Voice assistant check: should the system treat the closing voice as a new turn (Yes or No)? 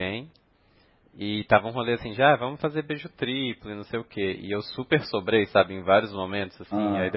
No